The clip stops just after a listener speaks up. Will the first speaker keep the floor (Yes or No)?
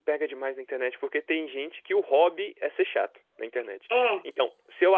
Yes